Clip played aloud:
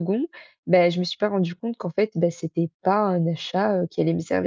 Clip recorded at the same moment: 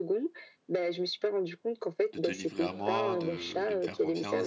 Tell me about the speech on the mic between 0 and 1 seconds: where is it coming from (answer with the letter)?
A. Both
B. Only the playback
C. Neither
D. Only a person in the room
B